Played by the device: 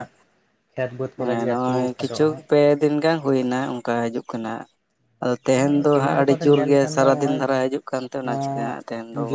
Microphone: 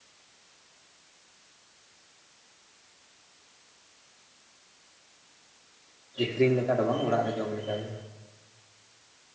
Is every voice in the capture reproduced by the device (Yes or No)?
No